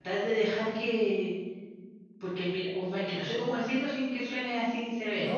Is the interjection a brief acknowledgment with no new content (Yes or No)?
No